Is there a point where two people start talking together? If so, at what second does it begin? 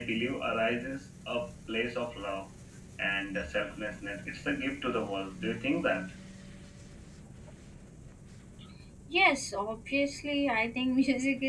none

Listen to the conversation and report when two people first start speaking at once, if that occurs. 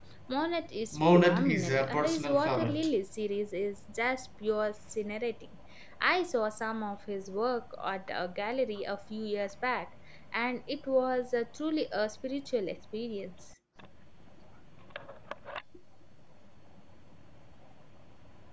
0.9 s

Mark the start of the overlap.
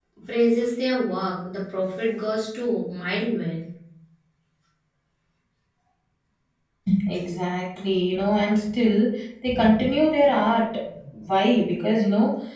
none

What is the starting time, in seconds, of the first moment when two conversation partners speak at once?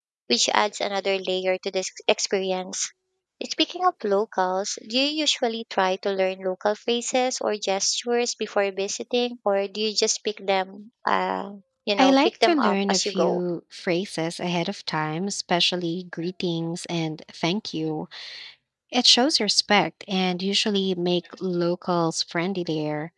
12.0 s

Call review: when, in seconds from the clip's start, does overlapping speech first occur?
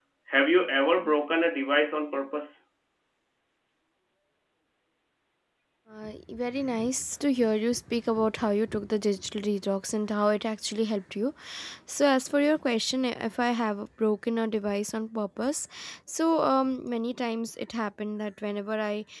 none

